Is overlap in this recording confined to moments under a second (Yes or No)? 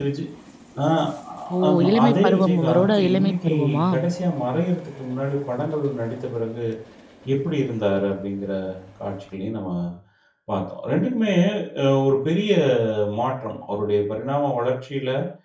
No